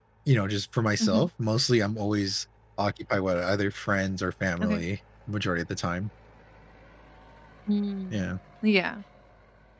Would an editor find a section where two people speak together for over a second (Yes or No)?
No